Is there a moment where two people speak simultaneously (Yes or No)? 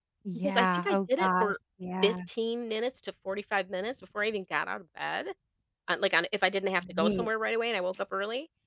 Yes